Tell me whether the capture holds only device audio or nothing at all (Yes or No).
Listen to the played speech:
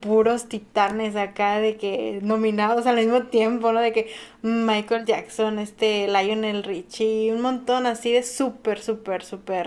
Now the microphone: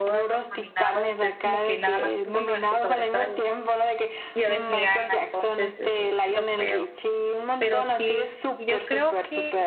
No